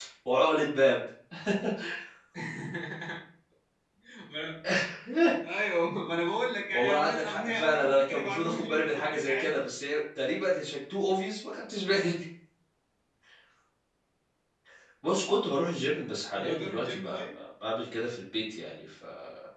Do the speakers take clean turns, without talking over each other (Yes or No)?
No